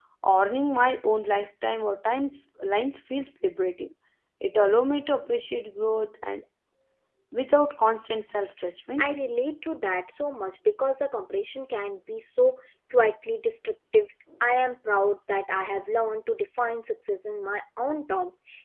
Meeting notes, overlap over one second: none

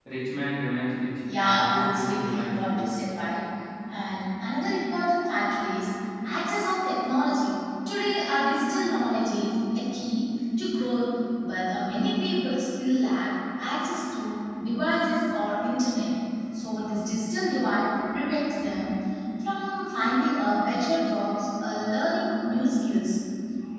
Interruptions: present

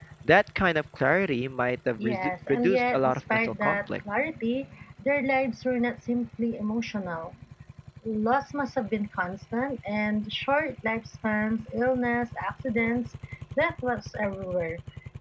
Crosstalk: present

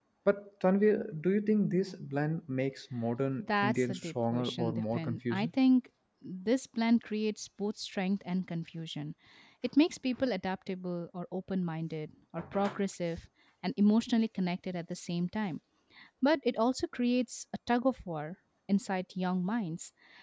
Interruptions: present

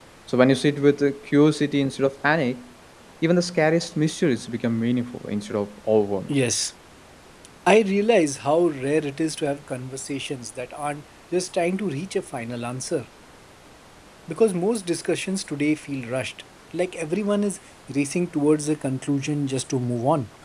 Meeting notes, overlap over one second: none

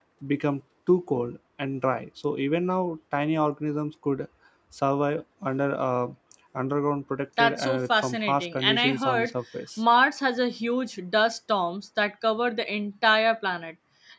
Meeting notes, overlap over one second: present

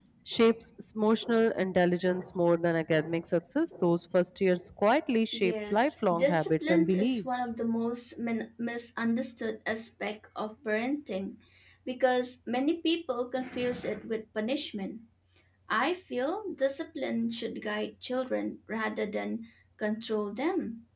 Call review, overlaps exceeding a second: present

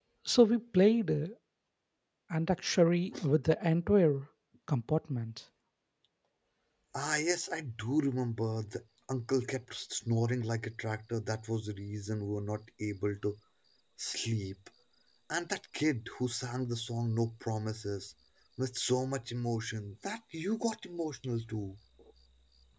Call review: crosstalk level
none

